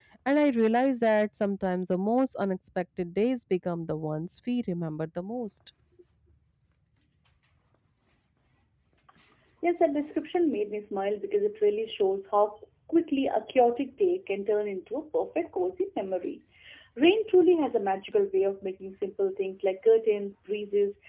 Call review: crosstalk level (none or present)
none